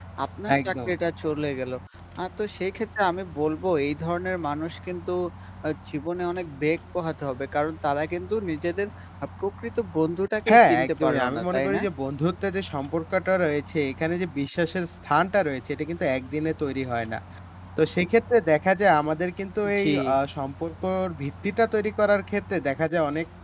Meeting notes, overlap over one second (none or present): present